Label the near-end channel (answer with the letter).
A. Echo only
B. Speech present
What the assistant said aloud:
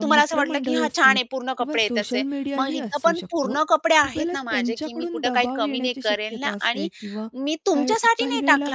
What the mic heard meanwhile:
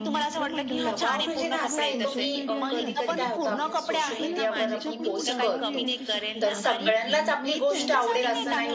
B